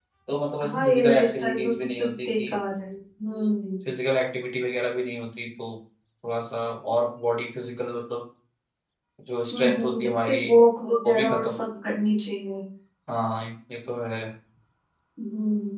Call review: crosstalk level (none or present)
present